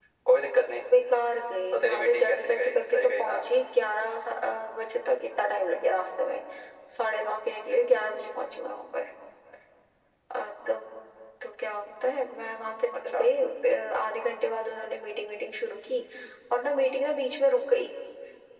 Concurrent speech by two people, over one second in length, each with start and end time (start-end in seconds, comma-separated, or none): 1.7-3.4